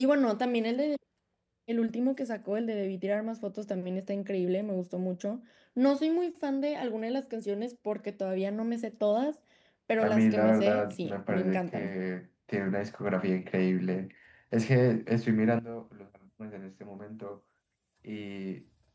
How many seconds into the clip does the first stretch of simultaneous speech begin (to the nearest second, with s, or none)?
10 s